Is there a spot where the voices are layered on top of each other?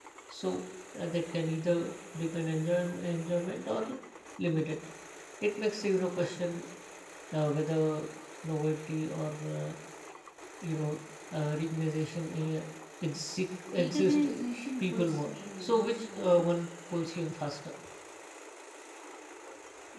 Yes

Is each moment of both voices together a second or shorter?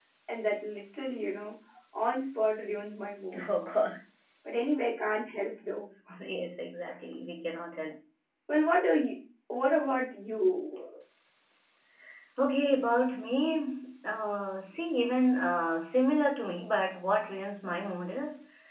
Yes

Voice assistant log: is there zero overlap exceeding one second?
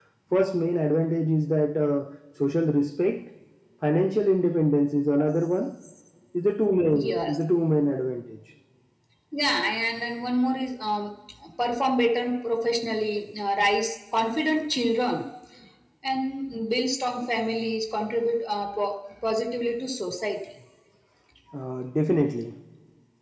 Yes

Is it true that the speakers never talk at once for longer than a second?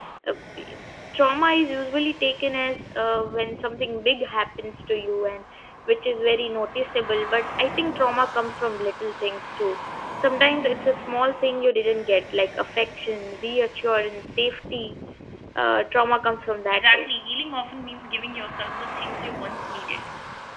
Yes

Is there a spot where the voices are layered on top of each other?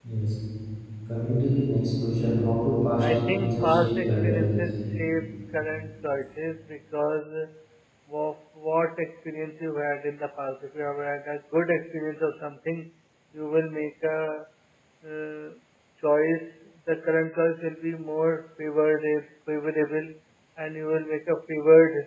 Yes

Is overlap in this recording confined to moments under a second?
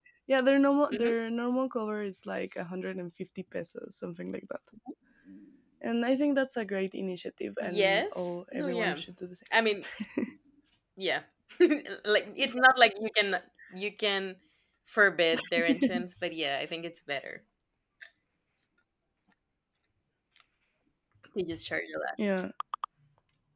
No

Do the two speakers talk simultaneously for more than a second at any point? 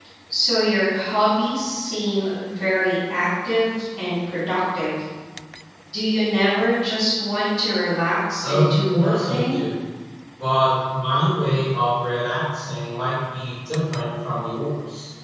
Yes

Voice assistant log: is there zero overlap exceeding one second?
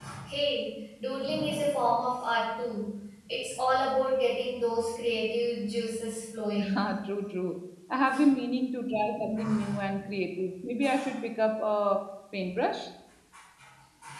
Yes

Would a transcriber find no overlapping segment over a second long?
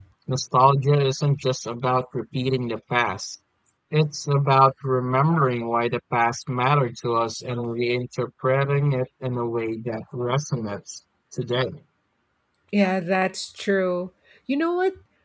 Yes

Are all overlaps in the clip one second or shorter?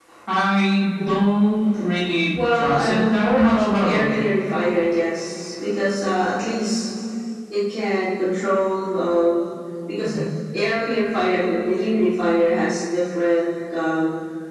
No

